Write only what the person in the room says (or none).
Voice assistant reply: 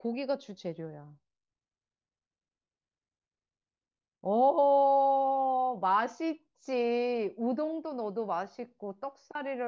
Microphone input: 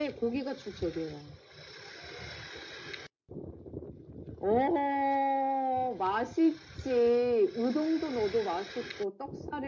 none